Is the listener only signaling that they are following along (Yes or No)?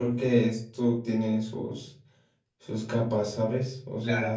No